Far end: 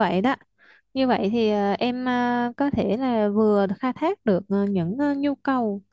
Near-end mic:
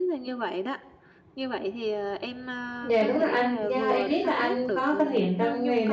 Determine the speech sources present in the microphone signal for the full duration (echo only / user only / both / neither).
both